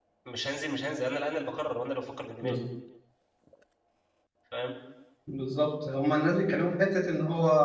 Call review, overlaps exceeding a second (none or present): none